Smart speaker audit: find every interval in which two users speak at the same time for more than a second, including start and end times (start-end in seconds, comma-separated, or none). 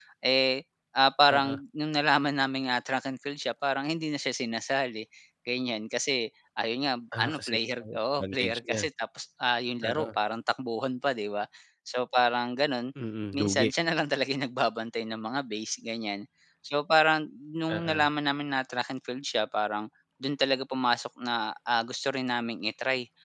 7.2-8.8